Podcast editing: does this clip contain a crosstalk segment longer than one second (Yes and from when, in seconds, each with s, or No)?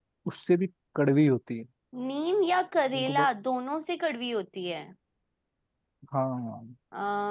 No